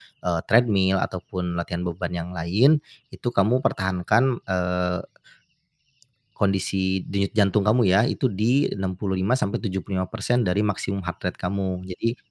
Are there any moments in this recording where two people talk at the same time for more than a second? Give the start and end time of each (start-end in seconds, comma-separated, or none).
none